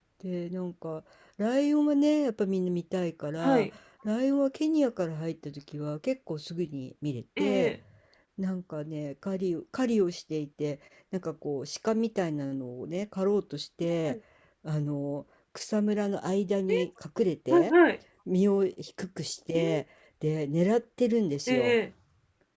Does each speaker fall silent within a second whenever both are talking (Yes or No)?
Yes